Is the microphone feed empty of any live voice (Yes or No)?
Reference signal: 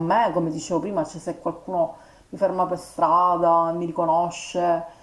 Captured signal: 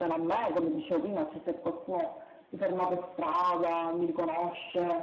Yes